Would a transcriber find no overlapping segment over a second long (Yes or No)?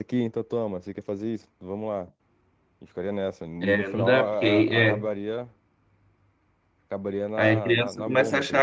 No